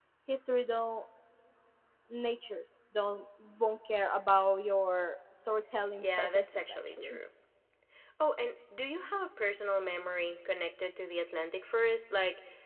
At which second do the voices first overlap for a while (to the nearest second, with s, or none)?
6 s